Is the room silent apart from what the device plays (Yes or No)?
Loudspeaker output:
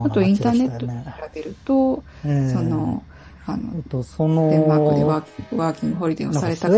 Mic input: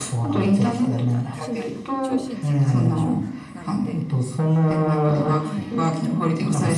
No